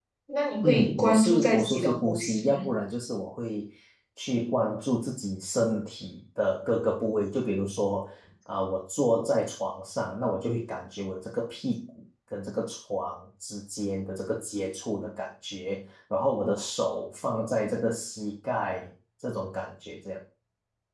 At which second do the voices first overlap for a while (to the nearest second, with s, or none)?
1 s